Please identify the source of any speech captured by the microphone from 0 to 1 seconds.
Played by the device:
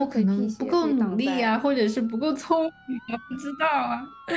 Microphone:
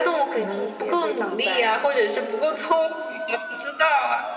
echo only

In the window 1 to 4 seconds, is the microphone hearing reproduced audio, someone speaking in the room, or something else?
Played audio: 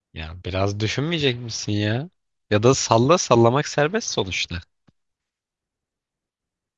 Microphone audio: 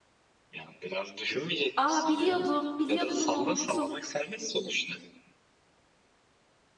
both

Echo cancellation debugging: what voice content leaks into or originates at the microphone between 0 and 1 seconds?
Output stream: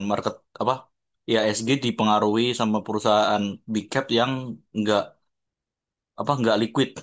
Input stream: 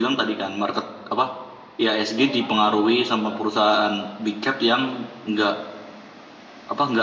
echo only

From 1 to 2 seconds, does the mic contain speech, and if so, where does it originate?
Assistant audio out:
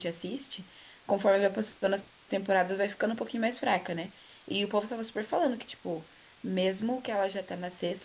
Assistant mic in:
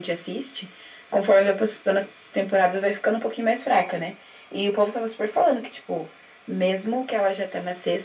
echo only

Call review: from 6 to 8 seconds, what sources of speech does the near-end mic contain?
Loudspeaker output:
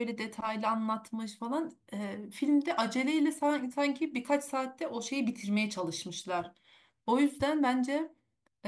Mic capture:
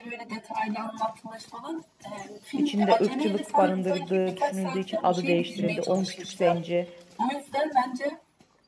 both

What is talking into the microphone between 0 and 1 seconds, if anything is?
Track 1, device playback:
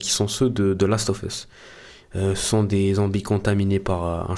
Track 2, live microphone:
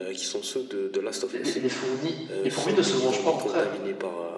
echo only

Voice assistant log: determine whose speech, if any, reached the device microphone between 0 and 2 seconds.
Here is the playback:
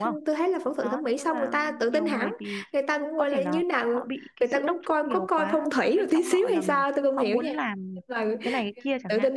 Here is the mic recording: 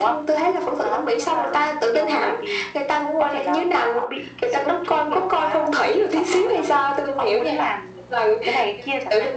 echo only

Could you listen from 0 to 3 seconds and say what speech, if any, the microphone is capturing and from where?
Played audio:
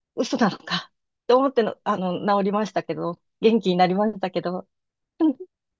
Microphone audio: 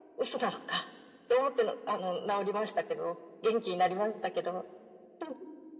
echo only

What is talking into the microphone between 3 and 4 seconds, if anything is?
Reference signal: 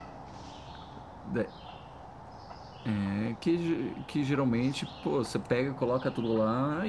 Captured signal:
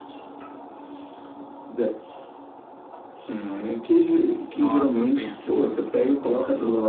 echo only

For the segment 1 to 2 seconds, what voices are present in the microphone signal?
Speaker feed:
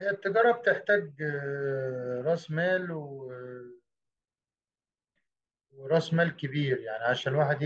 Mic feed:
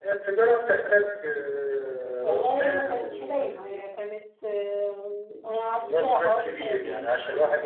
echo only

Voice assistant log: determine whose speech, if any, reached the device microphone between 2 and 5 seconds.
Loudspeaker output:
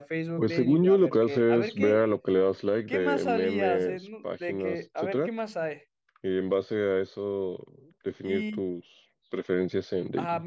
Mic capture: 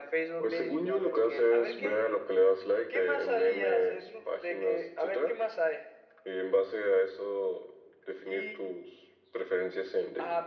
echo only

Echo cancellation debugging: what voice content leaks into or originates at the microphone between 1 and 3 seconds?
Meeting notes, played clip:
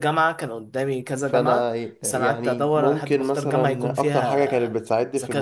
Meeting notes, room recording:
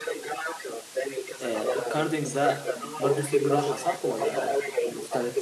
both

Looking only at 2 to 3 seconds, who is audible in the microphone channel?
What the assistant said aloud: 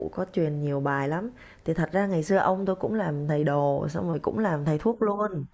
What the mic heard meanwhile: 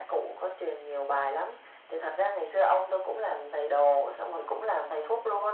echo only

